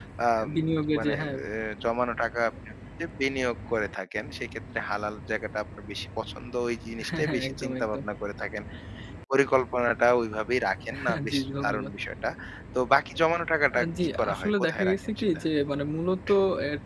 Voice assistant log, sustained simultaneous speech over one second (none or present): present